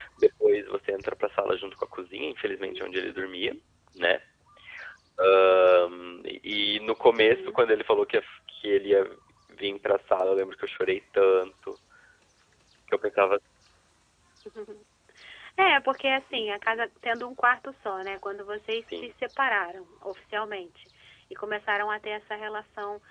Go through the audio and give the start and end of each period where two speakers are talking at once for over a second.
none

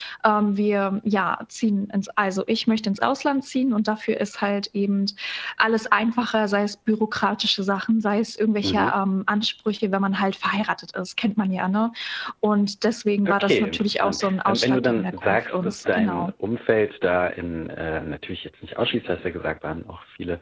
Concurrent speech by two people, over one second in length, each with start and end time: 13.2-16.3

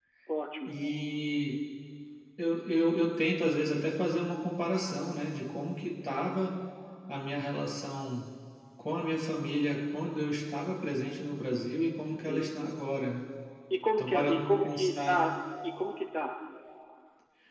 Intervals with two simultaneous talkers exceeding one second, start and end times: 14.0-15.2

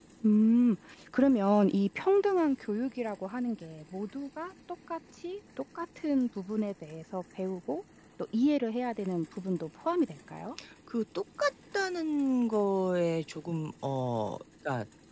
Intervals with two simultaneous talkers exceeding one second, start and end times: none

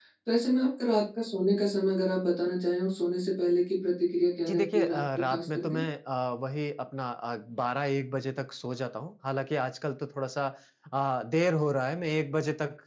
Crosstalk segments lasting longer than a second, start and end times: 4.5-5.8

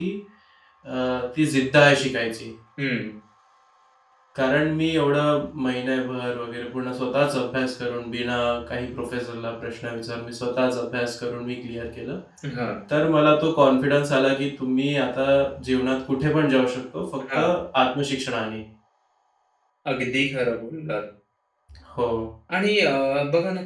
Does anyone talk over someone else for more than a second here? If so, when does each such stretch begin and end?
none

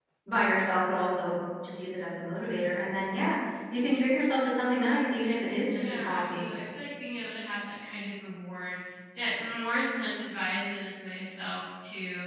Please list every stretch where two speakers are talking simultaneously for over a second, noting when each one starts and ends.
5.0-6.5

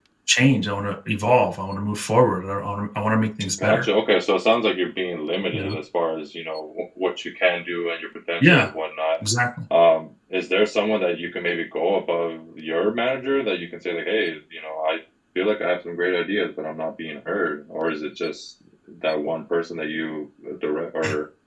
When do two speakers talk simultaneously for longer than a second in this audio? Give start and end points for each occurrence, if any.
none

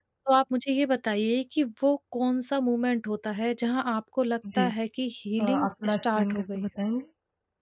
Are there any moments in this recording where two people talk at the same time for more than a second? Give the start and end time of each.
5.4-6.6

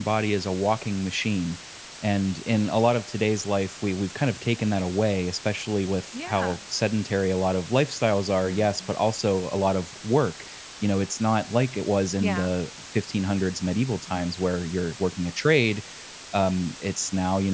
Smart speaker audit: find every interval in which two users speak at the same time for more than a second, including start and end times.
none

